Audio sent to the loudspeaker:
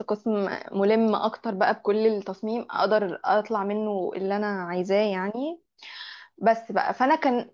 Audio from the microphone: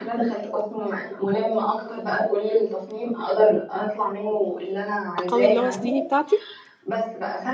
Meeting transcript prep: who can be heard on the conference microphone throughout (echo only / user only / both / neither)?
both